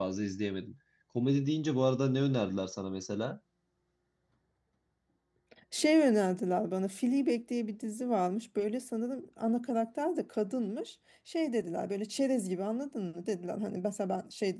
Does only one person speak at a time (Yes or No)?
Yes